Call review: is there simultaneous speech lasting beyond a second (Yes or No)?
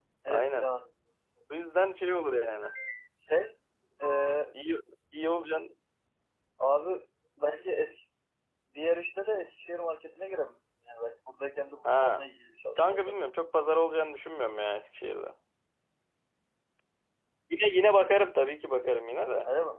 No